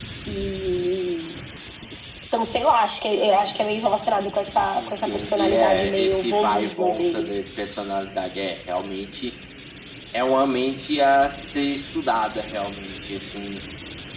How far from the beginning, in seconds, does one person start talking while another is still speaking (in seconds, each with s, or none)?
4.7 s